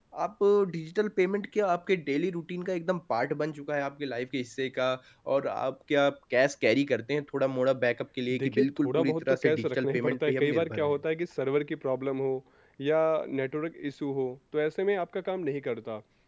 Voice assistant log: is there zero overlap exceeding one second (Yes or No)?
No